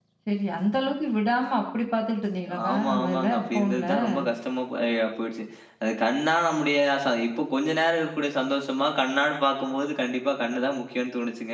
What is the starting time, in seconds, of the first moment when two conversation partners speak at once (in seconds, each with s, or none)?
2.5 s